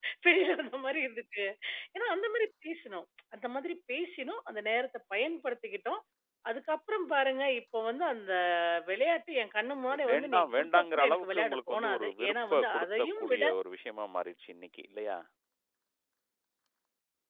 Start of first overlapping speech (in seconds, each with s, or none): 9.9 s